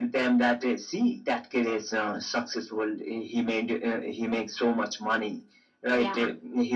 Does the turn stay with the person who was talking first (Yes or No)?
Yes